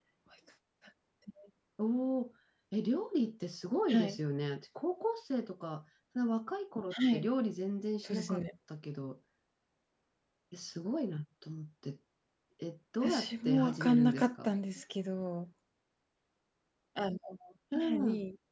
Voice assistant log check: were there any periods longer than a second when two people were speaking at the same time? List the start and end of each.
13.0-14.6

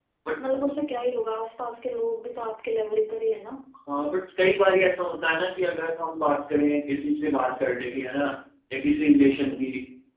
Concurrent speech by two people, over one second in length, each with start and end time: none

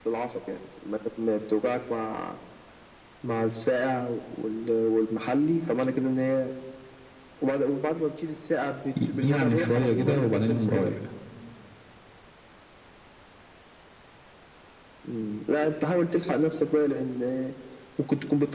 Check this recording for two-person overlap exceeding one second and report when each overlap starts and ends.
9.1-10.9

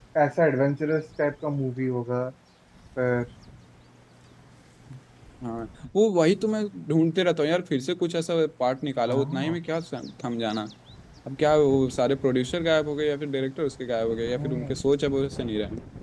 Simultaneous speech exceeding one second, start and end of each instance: none

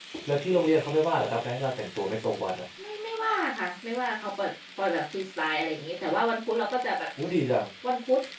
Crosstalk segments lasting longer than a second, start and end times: none

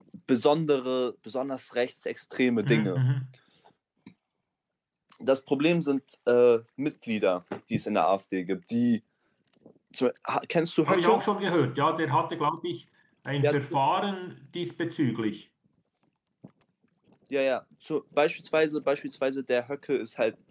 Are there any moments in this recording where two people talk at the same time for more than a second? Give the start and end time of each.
none

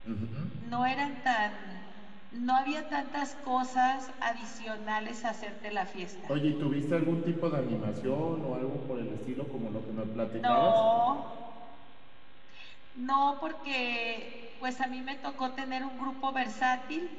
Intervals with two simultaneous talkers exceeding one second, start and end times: none

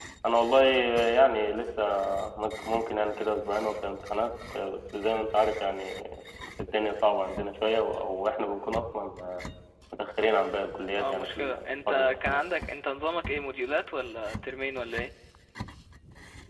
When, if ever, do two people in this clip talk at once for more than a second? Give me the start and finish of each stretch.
11.0-12.4

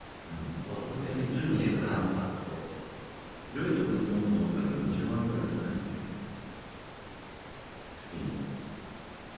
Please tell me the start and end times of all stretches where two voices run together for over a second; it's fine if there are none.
0.8-2.2

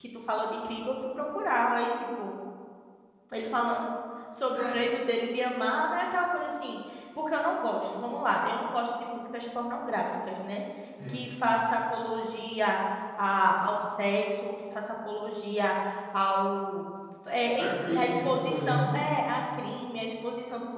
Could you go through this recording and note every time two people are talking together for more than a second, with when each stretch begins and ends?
17.6-18.9

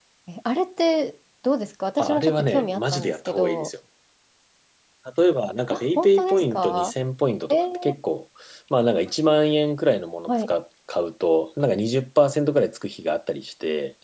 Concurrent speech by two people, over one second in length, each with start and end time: 2.0-3.7, 5.7-6.9

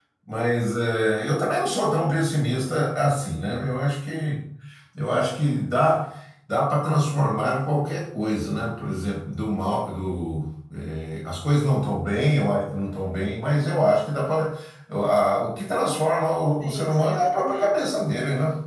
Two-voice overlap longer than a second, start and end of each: 16.6-17.9

